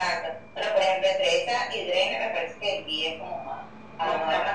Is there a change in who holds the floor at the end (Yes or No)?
No